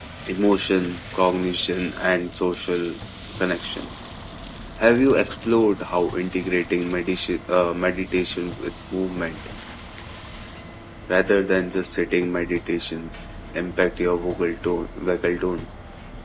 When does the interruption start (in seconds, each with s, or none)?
none